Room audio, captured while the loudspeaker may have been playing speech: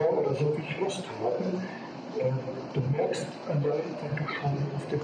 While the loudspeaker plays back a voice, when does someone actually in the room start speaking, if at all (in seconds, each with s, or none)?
none